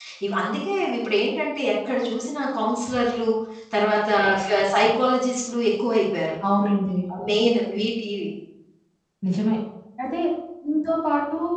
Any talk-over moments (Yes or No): No